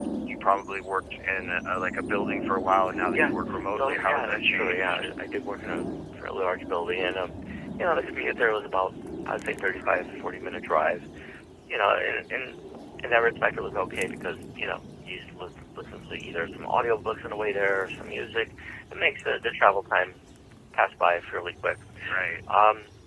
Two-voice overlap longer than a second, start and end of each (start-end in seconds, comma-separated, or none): 3.7-5.1